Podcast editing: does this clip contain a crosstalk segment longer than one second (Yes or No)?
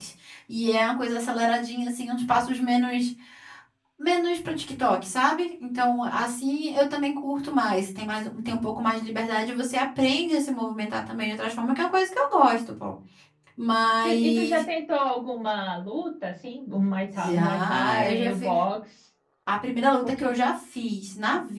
Yes